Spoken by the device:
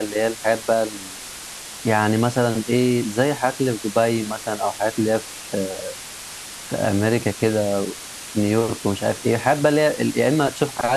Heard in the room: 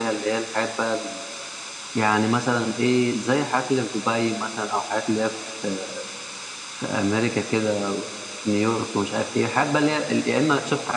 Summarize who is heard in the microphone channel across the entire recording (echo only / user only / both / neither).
echo only